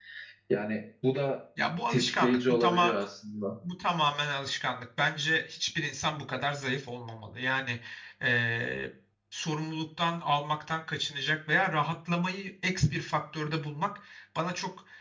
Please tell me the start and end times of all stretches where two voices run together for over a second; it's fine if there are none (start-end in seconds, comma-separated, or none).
1.6-3.0